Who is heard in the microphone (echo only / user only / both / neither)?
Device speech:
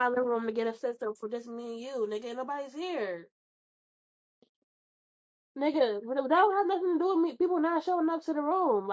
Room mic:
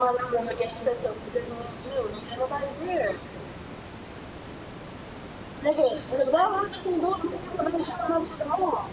echo only